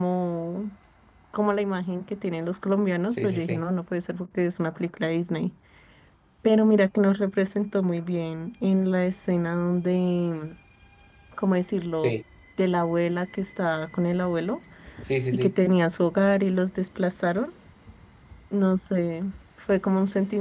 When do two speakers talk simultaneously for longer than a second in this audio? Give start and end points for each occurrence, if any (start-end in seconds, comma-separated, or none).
none